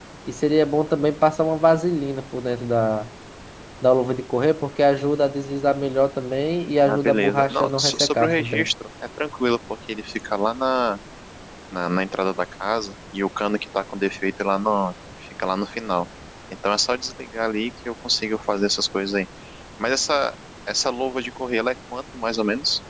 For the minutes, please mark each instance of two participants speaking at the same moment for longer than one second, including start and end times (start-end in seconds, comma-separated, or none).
6.8-8.7